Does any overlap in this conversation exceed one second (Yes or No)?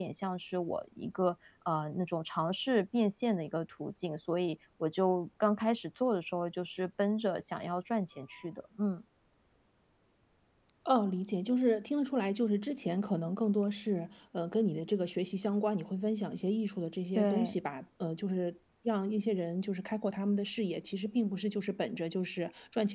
No